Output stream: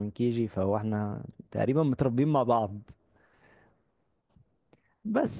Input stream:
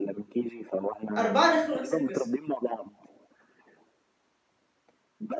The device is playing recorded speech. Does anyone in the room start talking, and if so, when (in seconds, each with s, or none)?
1.2 s